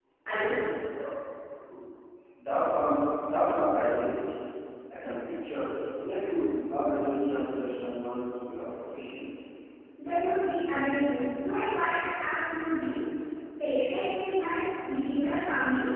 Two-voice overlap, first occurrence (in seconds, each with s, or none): none